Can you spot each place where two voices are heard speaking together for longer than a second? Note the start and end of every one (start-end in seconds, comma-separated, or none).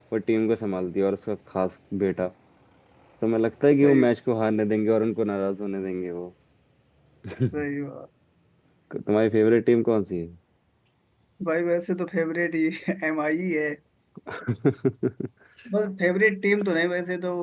none